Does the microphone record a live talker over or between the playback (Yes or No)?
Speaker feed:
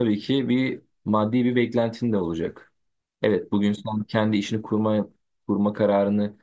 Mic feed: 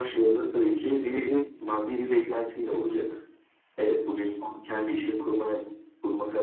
Yes